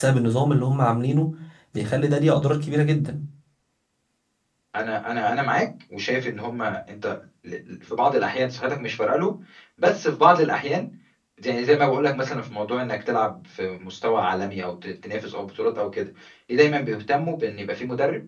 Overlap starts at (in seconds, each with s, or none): none